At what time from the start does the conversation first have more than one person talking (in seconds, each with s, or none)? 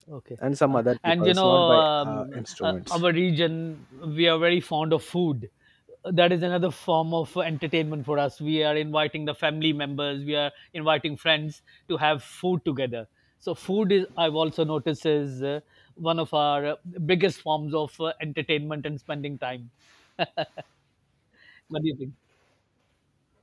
0.7 s